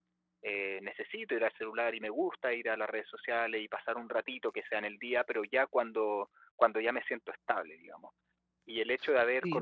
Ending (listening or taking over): listening